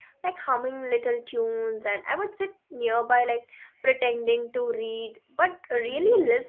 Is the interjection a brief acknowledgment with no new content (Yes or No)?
No